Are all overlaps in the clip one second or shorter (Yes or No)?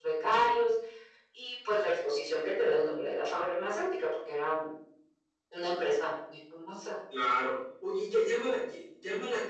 Yes